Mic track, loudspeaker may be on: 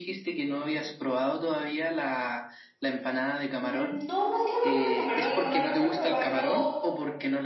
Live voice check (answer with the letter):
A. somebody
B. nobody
A